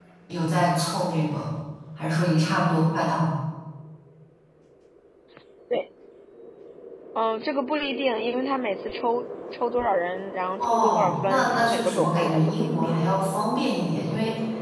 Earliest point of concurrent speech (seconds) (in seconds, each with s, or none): 10.6 s